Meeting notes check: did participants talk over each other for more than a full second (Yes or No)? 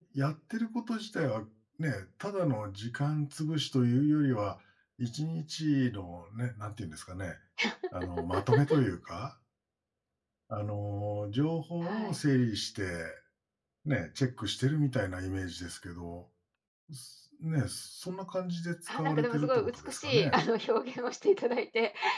Yes